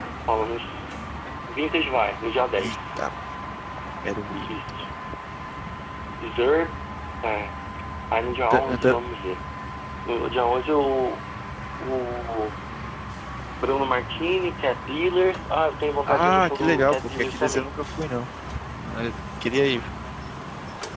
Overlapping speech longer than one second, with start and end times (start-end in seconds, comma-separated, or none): 16.1-17.7